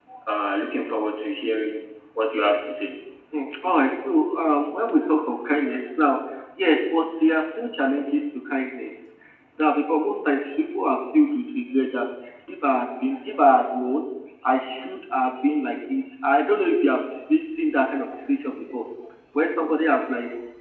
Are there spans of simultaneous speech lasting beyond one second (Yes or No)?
No